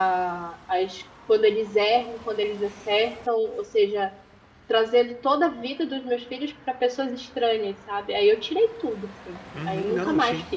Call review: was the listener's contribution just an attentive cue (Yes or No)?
No